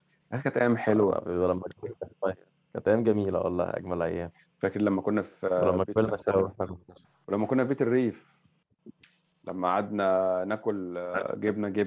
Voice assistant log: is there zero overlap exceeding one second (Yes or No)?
Yes